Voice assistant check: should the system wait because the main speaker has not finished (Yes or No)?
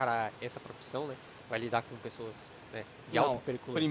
No